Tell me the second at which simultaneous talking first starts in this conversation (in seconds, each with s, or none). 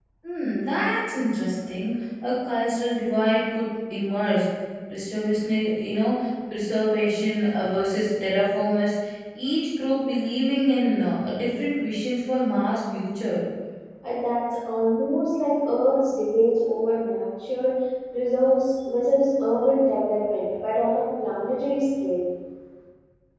none